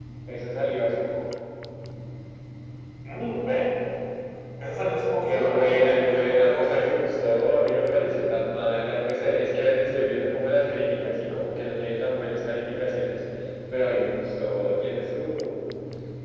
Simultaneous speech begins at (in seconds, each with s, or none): 5.3 s